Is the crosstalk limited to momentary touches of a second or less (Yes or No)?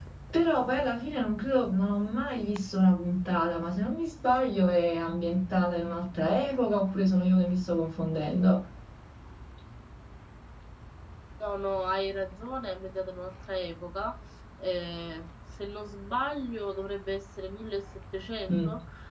Yes